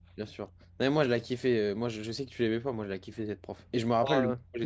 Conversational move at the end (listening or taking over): listening